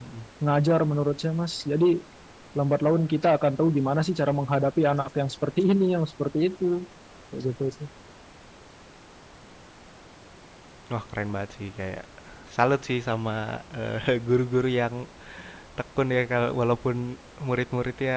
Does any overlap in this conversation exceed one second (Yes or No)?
No